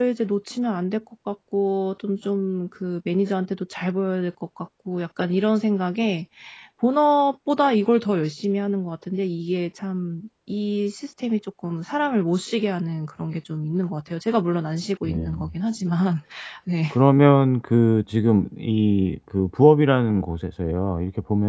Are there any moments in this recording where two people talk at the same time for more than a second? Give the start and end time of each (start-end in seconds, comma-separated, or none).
none